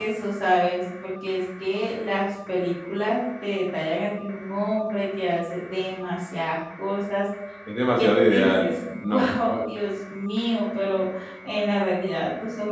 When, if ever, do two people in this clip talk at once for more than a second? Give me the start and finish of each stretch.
8.0-9.3

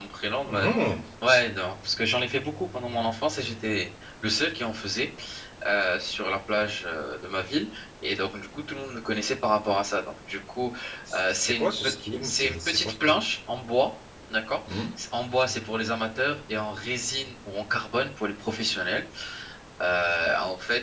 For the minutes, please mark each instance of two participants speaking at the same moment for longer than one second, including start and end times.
11.1-12.9

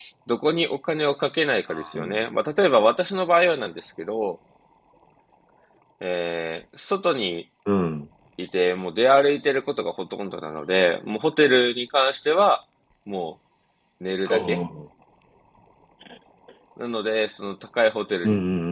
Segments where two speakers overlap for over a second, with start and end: none

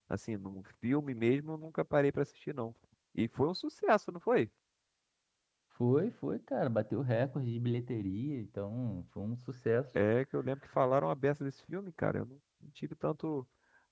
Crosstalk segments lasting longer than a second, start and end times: none

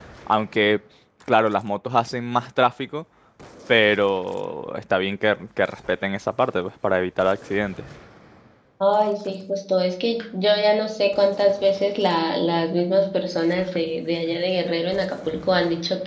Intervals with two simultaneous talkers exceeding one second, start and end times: none

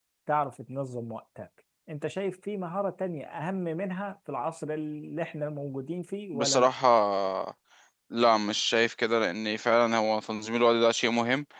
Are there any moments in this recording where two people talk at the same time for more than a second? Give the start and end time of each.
none

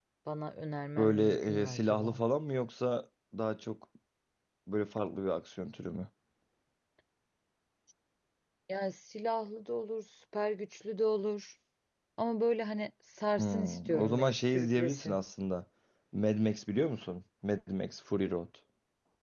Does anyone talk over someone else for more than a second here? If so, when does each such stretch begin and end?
1.0-2.2, 13.4-15.2

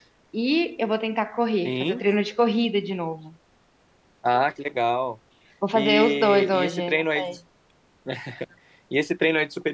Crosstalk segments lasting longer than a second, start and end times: 5.8-7.3

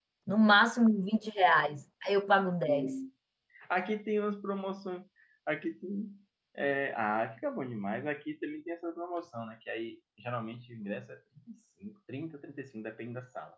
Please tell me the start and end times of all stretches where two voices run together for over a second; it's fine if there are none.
none

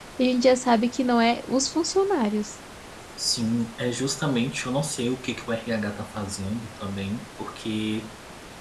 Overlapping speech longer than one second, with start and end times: none

